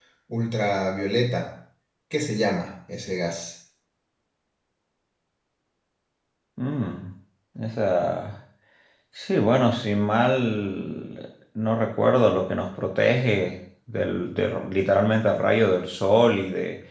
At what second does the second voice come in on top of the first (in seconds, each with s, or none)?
none